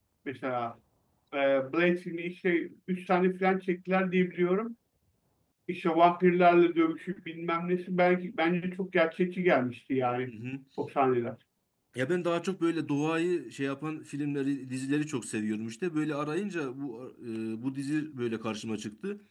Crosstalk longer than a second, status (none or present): none